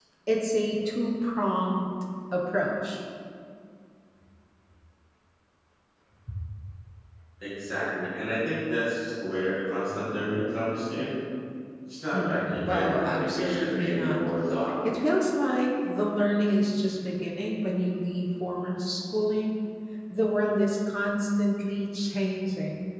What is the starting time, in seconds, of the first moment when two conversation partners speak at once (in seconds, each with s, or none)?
12.1 s